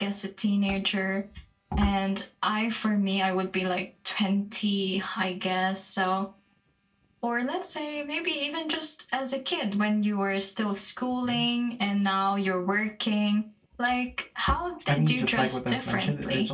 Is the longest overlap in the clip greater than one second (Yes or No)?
Yes